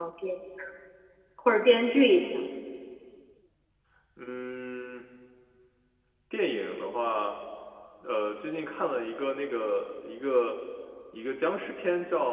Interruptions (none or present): none